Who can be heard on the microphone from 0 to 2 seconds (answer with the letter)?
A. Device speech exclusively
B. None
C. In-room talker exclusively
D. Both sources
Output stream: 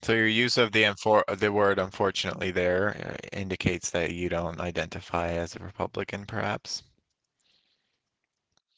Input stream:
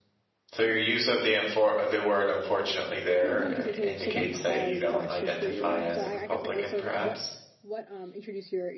A